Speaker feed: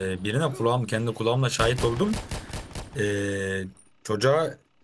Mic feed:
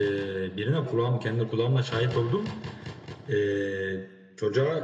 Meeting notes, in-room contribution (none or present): none